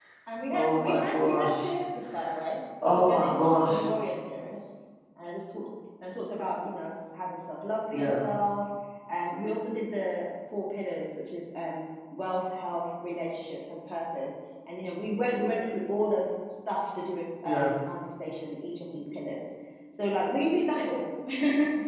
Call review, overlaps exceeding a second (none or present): present